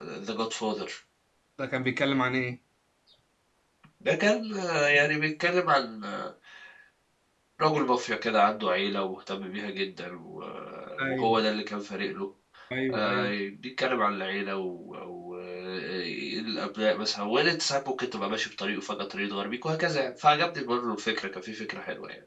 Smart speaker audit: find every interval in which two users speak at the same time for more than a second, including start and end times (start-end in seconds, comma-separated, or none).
none